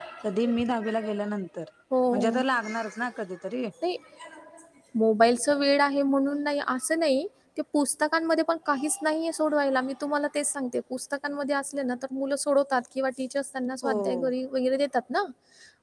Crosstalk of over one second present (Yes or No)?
No